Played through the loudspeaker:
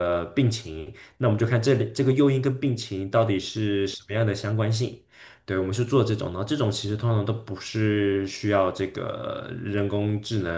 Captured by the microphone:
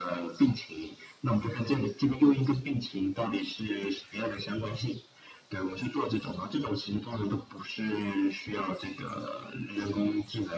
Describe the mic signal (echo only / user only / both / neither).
echo only